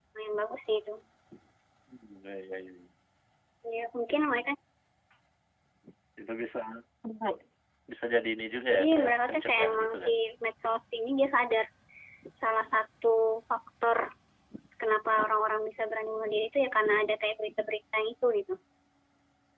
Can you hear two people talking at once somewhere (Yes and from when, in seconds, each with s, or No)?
Yes, from 8.7 s